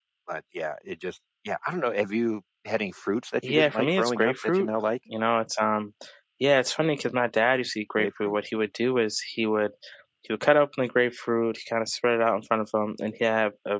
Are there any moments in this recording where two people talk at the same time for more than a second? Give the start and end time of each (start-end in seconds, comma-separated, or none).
3.4-4.7